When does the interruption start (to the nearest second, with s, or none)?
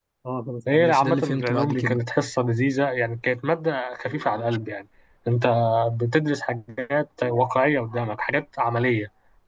1 s